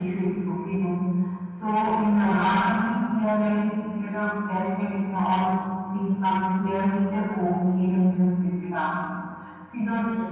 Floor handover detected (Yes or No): No